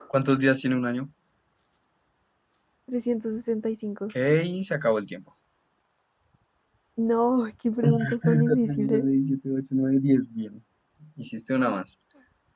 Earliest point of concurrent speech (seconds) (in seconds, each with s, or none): 7.8 s